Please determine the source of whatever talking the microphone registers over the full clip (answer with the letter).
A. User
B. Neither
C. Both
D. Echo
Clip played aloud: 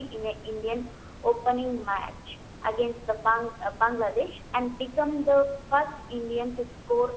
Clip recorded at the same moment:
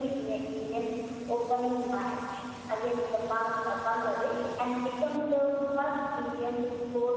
D